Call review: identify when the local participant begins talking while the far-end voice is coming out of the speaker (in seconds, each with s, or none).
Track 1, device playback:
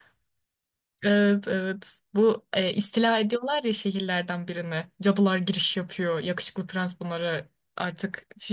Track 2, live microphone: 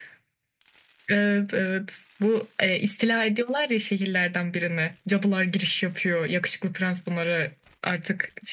none